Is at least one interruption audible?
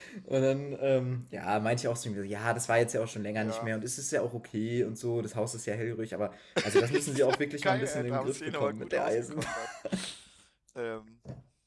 Yes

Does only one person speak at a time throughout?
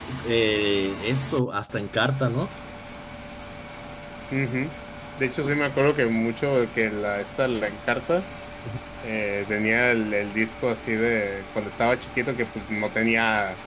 Yes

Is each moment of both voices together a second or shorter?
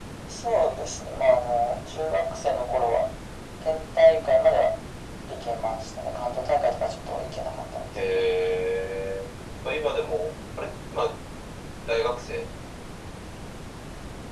Yes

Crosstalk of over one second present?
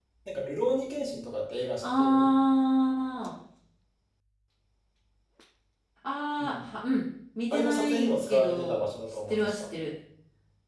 Yes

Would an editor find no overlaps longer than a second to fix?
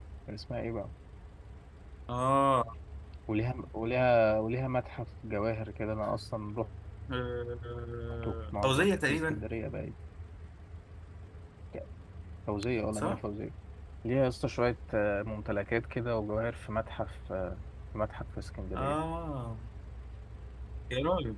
No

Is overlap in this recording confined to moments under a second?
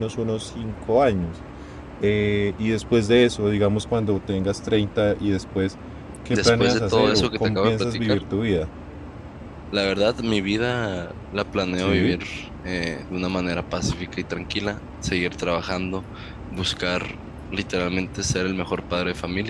No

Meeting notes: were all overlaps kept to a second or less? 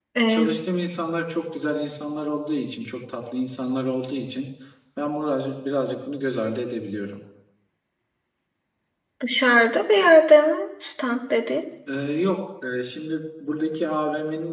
Yes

